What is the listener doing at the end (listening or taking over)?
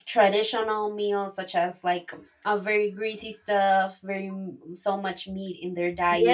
taking over